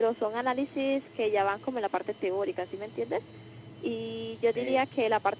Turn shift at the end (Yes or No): No